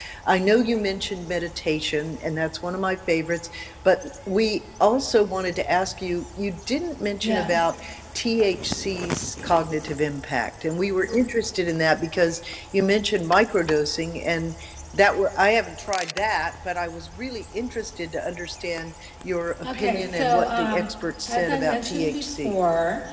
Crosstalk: present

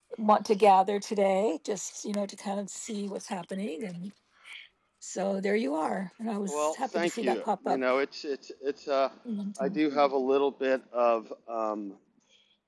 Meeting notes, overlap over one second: present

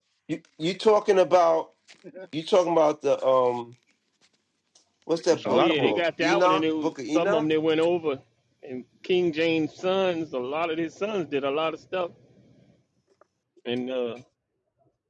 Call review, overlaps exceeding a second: present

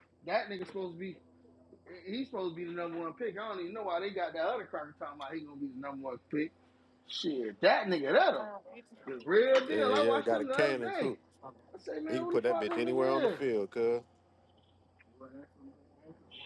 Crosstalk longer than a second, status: present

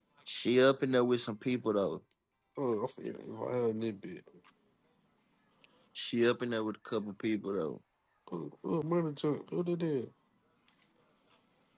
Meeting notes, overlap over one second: none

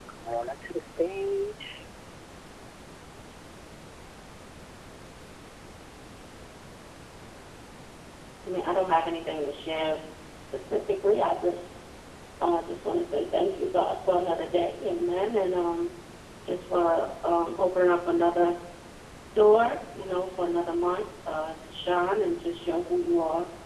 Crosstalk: none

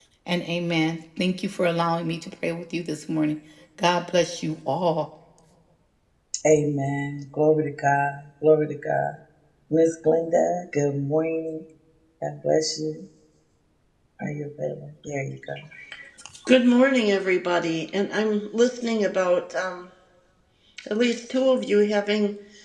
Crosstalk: none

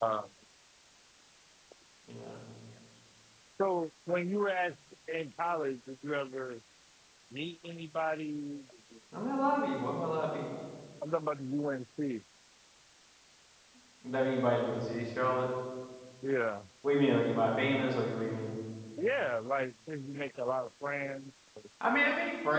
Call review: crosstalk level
none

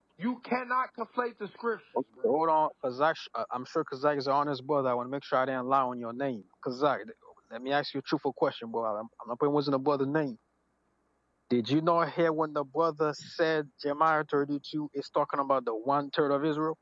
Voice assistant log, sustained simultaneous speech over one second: none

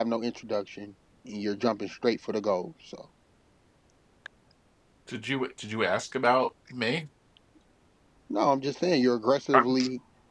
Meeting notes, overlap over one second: none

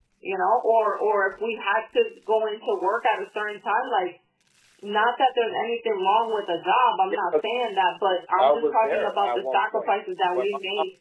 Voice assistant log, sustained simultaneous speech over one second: present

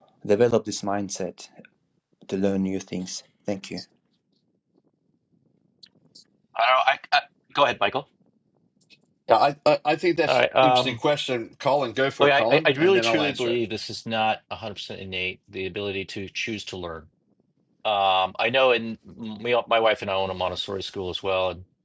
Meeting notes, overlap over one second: present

